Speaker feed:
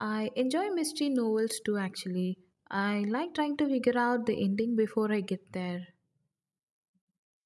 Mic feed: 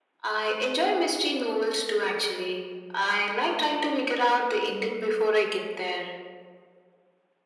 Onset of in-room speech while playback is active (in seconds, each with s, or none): none